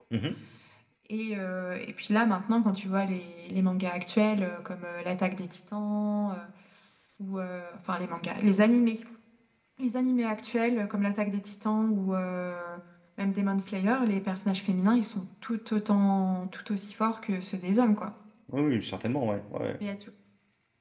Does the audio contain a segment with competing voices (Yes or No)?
No